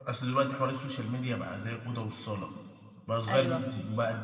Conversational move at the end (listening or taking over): listening